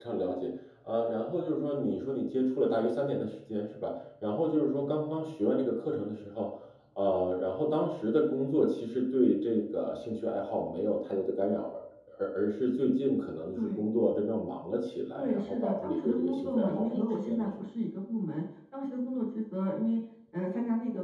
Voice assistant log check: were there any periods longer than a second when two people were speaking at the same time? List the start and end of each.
15.2-17.5

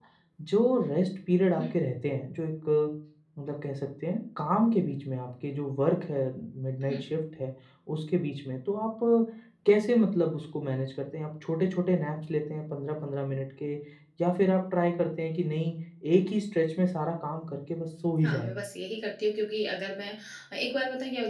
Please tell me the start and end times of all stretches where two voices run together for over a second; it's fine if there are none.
none

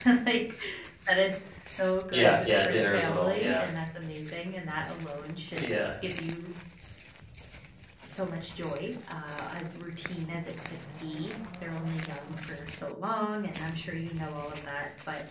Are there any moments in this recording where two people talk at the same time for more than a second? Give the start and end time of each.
2.1-3.7

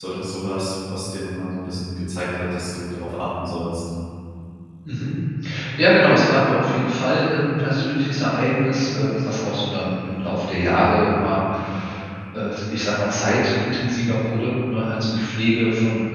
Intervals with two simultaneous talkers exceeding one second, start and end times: none

